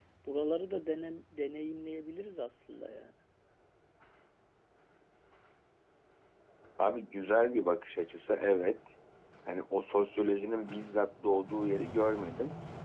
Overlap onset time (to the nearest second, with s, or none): none